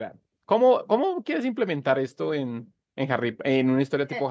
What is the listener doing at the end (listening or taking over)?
taking over